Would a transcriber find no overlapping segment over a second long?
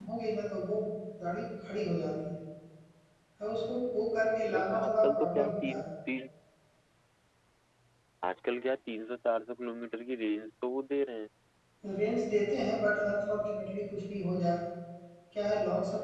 No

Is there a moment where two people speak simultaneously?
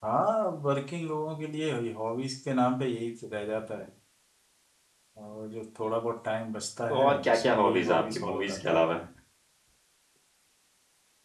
Yes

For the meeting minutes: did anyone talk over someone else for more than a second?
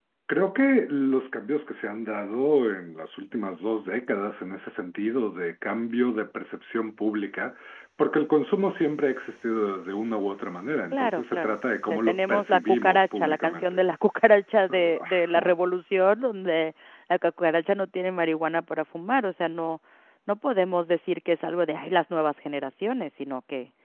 Yes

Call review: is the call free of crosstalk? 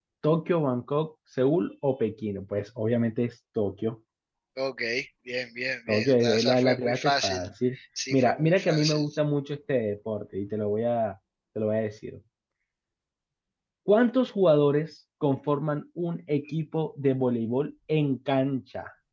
No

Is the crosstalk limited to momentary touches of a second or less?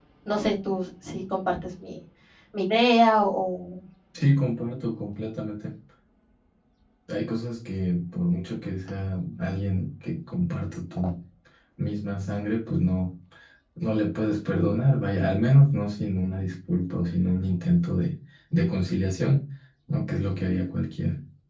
Yes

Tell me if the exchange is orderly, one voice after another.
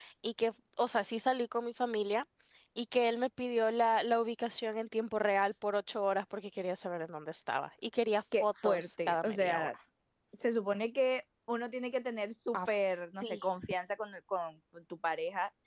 No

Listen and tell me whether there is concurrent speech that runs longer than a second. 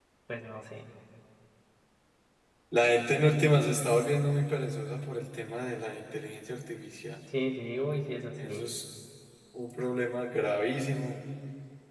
No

